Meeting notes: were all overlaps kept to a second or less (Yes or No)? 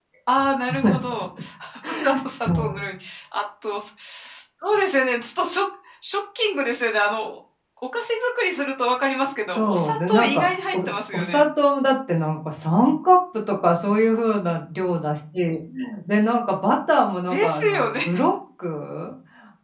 No